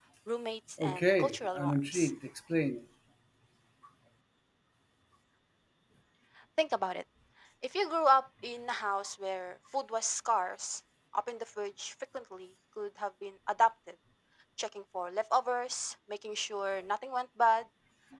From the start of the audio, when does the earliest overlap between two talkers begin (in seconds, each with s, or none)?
0.8 s